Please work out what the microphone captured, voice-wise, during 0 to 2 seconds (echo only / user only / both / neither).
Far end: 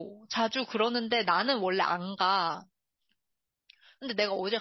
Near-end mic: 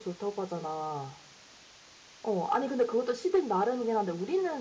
user only